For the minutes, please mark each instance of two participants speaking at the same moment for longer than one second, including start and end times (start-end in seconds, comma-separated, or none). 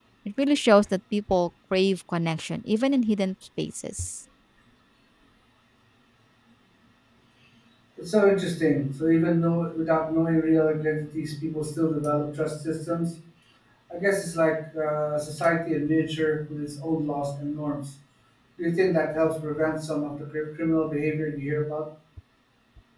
none